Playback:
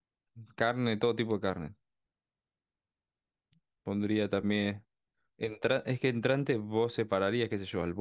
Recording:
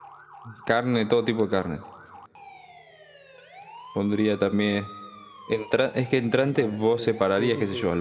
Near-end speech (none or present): present